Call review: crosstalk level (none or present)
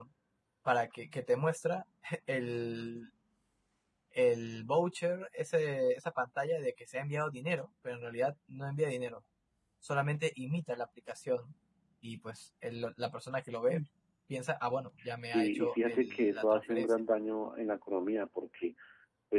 present